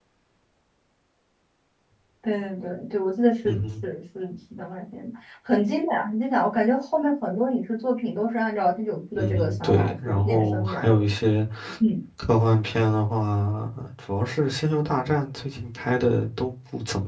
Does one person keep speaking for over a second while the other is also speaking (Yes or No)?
Yes